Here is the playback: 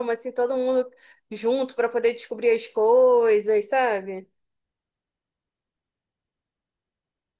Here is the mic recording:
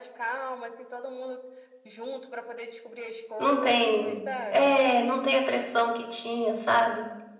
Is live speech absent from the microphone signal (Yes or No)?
No